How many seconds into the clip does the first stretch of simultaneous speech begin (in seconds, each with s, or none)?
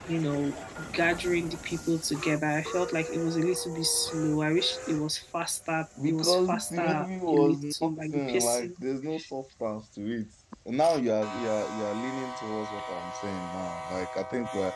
6.0 s